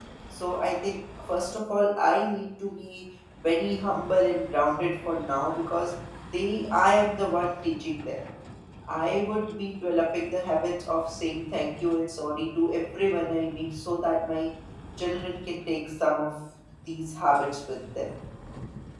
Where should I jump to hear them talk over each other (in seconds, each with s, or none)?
none